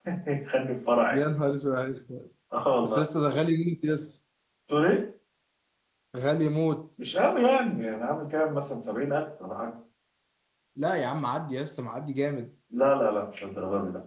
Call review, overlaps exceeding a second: none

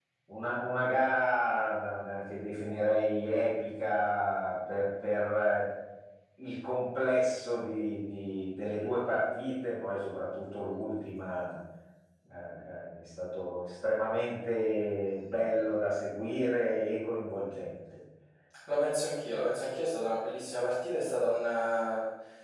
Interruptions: none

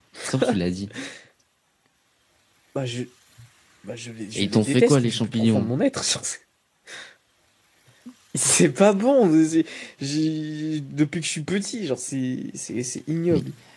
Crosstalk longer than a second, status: present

